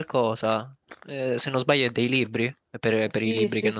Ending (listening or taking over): taking over